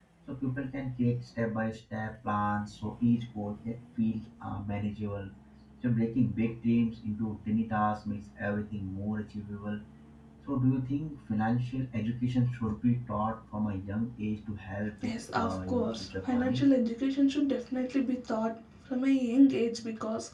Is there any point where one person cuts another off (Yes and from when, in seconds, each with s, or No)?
Yes, from 15.0 s